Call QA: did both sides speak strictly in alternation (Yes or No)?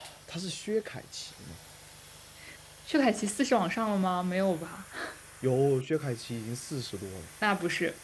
Yes